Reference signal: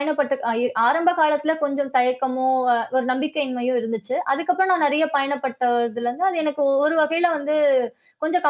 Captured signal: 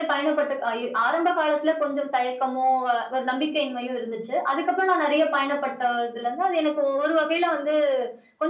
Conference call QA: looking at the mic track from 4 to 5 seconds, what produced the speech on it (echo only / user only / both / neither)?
echo only